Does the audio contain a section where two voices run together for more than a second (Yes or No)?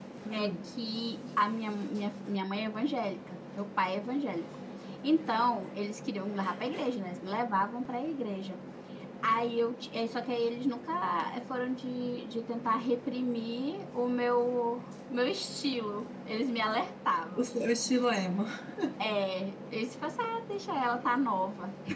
No